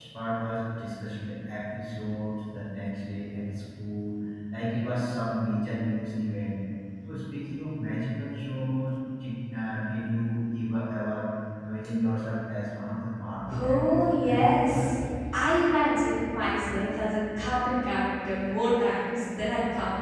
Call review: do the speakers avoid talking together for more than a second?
No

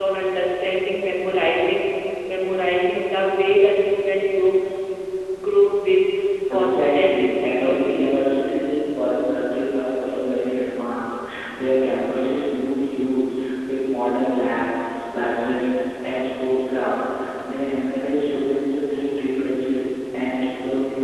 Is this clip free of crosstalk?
No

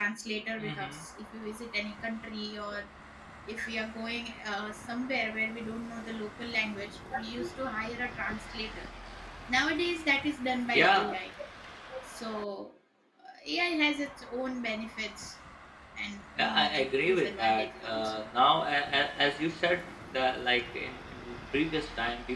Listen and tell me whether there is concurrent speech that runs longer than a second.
Yes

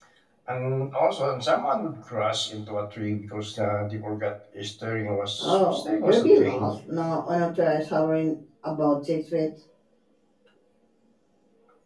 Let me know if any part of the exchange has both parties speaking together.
Yes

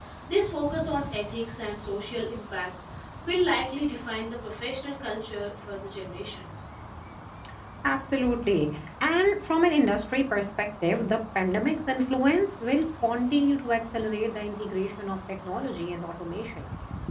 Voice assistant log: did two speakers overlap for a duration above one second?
No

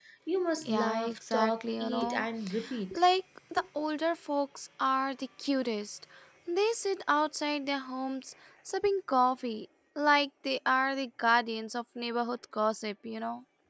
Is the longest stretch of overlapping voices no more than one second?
No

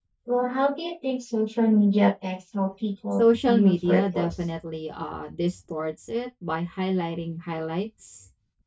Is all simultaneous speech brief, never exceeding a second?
No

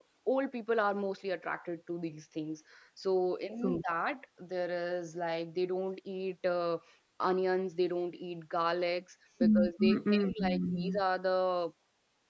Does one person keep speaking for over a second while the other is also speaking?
Yes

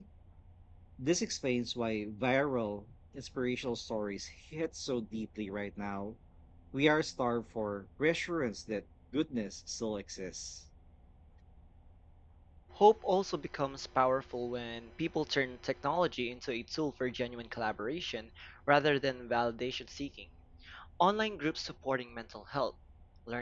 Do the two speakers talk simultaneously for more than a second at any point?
No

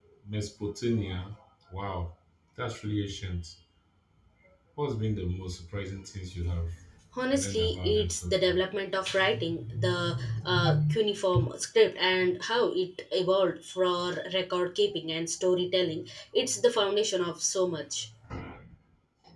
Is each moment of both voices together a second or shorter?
No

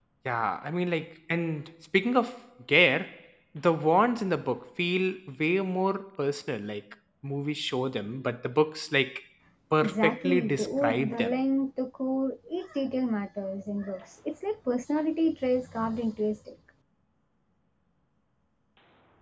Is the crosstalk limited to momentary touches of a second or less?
No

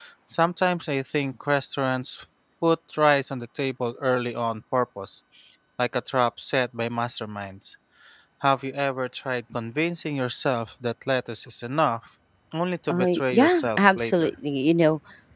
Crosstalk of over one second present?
Yes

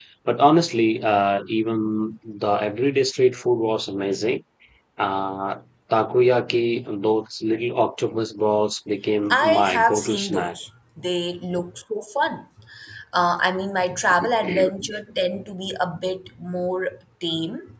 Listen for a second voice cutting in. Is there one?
Yes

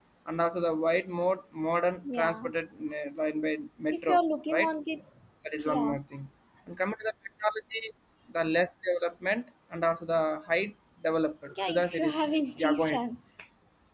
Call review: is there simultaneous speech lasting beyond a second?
Yes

